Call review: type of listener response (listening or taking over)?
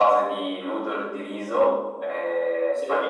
listening